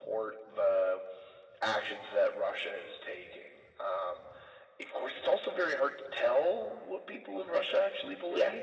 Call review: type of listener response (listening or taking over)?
listening